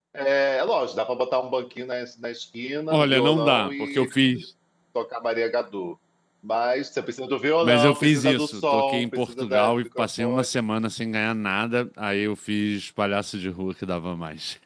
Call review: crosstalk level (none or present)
present